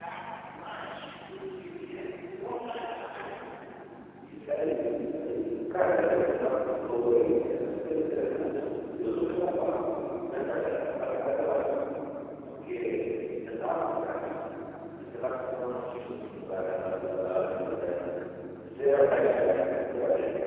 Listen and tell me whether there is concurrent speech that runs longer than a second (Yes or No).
No